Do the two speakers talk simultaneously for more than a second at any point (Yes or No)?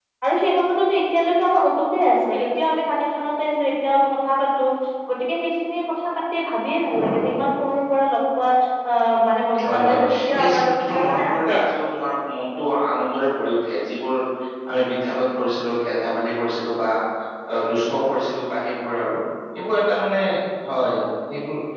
Yes